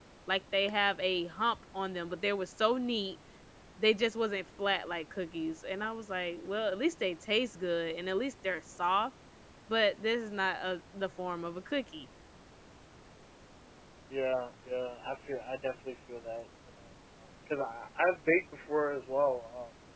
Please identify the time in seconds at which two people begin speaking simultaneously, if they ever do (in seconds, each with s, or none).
none